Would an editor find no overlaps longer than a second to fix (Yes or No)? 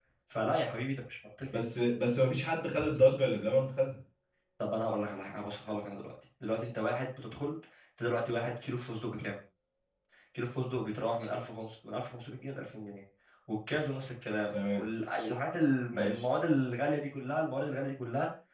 Yes